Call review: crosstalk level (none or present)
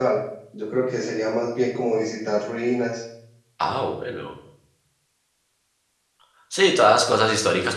none